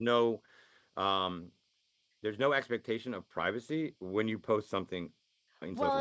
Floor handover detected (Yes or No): Yes